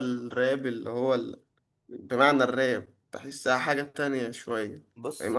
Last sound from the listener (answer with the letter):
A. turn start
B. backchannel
A